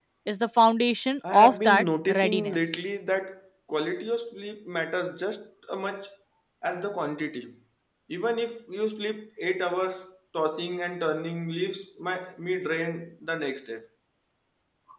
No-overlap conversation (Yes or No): No